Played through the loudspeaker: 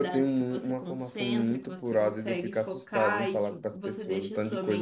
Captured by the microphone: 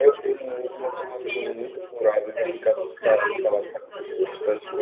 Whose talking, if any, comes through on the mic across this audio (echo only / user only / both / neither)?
both